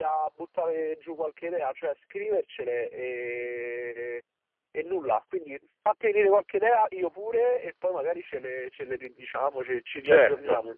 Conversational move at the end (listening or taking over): taking over